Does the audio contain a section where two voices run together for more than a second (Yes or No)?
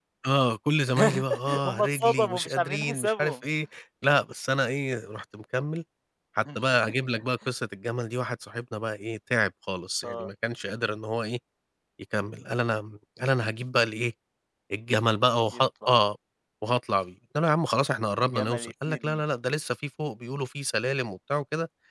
Yes